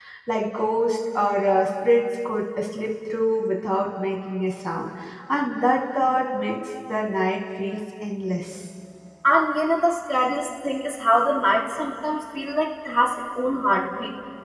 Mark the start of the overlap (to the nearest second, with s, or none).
none